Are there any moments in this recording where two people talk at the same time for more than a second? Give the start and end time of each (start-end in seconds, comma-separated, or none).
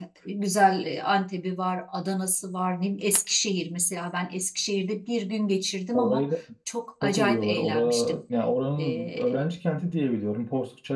7.0-8.2